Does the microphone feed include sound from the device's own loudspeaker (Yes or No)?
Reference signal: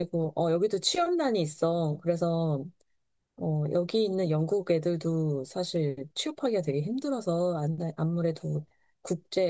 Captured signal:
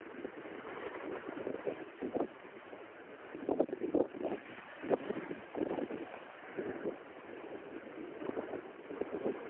No